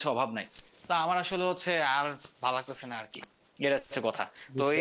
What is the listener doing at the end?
listening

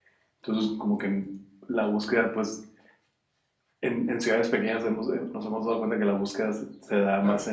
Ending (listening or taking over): listening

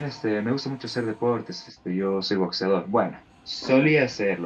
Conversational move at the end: listening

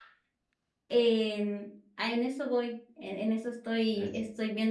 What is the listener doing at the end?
listening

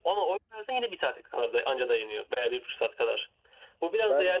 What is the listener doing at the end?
listening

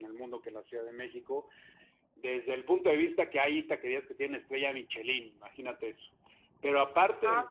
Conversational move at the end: listening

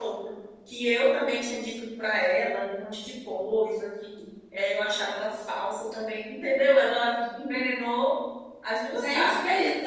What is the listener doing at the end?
taking over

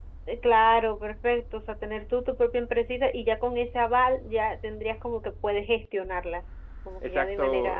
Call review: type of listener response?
taking over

